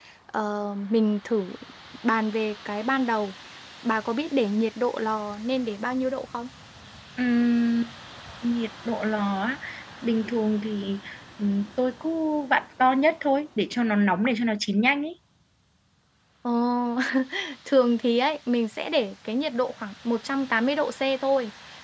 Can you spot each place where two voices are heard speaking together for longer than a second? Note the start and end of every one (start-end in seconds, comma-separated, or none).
none